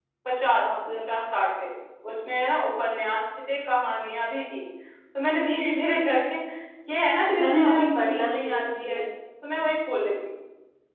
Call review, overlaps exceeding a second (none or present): present